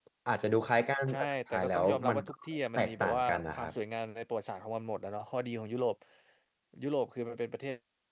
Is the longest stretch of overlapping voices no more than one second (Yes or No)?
No